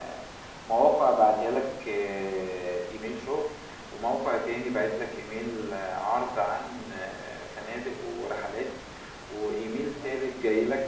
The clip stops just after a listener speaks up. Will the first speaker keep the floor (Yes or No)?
Yes